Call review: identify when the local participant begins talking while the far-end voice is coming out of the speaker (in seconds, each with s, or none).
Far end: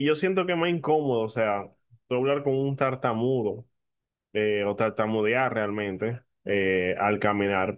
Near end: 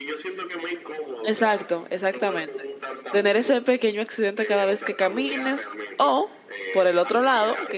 1.2 s